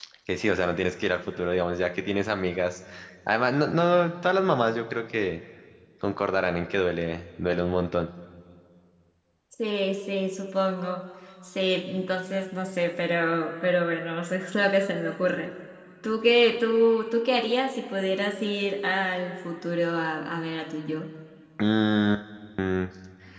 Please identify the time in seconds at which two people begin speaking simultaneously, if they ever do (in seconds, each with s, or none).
none